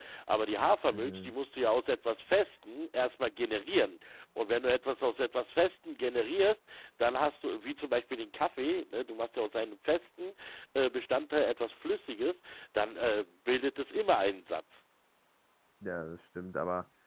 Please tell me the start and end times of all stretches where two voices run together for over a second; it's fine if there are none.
none

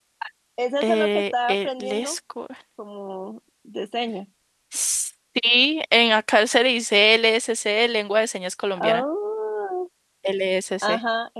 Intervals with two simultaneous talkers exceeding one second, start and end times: 0.8-2.2

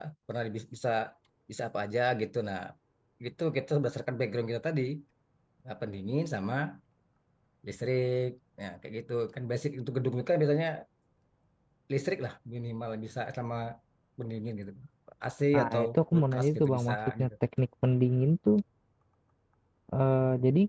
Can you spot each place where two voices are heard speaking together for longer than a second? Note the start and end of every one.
15.5-17.3

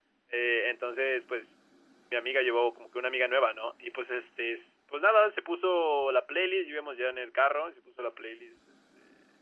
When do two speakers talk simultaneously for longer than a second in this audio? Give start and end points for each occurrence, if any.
none

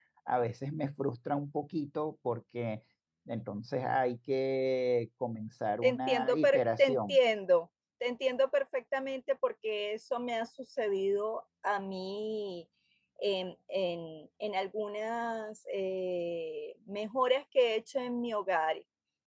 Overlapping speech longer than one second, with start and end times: 5.8-7.2

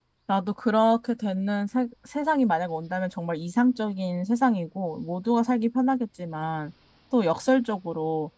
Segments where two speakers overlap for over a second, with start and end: none

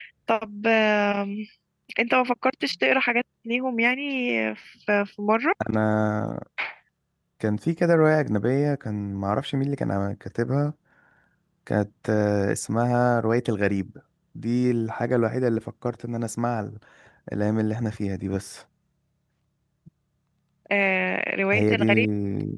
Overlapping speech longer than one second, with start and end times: none

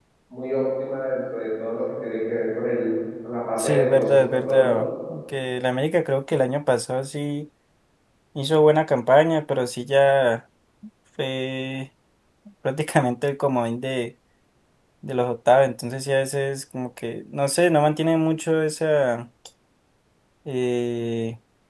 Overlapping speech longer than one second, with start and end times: 3.6-4.8

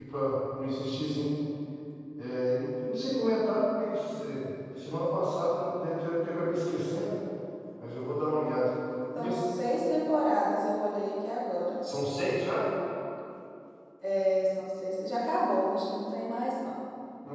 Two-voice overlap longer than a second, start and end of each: none

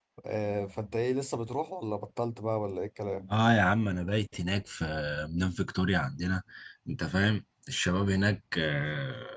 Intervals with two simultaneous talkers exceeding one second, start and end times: none

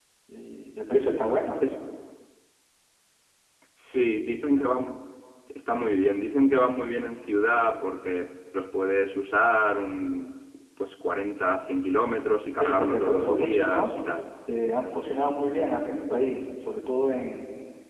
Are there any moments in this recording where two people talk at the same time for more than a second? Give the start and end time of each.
12.6-14.2

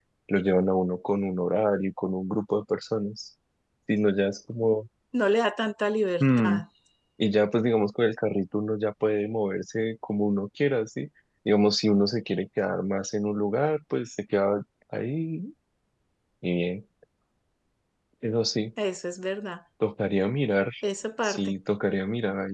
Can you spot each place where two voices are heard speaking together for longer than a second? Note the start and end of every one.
none

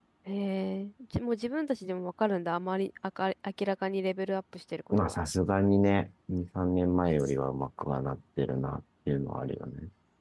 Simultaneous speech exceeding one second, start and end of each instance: none

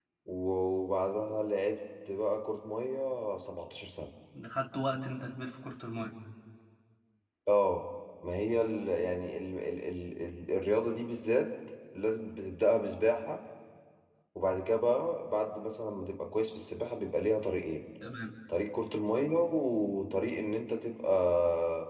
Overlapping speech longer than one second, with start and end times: none

